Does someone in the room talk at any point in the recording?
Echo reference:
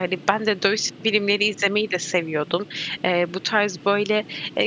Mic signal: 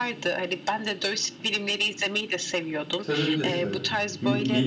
Yes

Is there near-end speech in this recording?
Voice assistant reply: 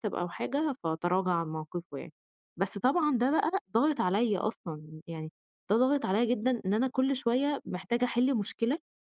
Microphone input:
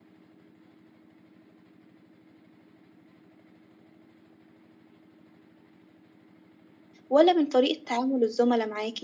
Yes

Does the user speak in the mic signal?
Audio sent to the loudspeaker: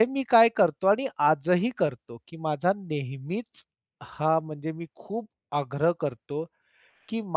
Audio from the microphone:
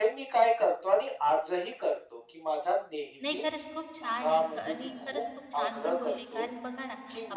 Yes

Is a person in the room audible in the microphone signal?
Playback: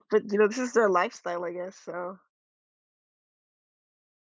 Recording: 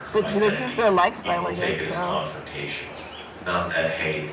Yes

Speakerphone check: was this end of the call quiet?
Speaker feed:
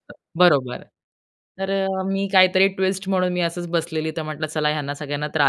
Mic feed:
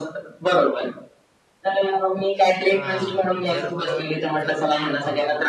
No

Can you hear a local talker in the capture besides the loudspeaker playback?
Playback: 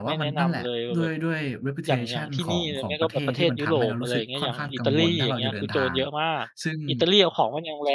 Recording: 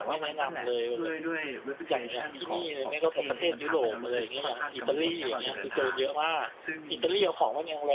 No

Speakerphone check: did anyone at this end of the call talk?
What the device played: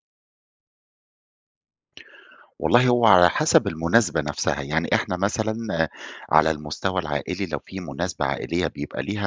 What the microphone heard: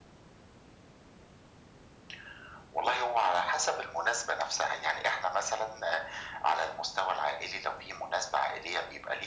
No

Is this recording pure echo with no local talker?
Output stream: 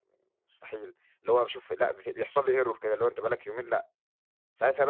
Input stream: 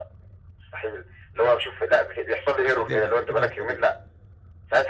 No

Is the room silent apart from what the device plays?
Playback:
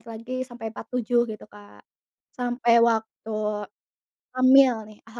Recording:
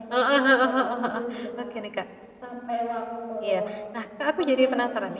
No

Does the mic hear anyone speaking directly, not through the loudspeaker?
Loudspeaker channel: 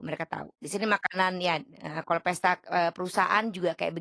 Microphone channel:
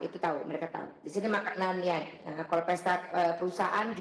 No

